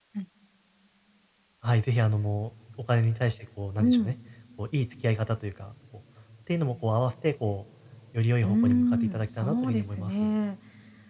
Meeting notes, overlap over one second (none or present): present